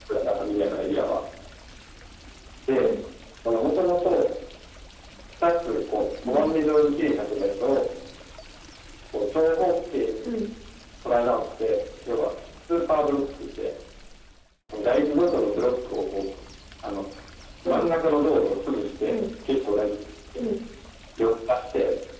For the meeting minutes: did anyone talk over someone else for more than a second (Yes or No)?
No